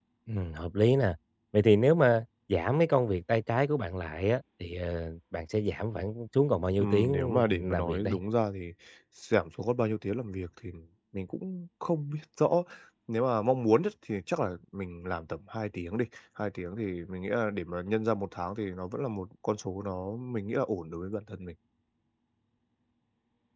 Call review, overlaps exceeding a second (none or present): present